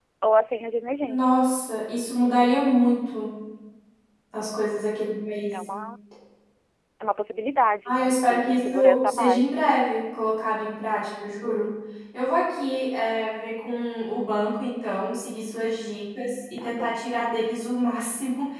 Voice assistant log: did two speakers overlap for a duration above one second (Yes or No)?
Yes